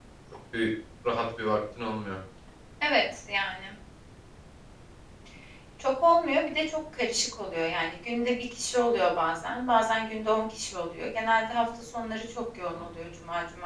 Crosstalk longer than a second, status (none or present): none